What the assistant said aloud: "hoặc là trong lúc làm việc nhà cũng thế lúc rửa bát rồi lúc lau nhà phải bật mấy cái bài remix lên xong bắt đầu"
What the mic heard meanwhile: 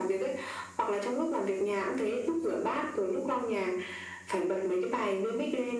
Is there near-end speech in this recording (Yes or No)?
No